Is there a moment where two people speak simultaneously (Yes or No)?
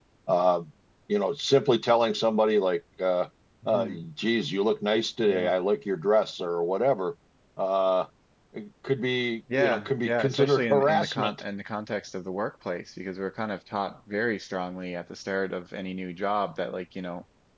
Yes